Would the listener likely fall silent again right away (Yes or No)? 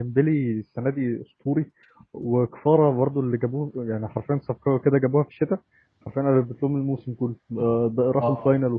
No